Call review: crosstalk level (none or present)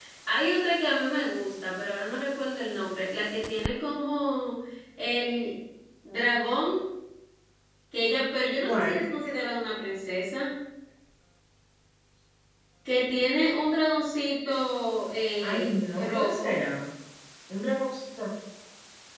present